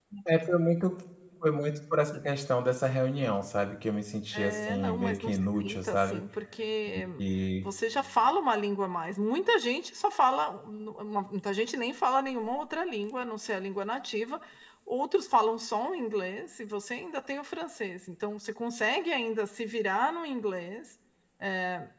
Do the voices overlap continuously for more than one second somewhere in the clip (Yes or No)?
Yes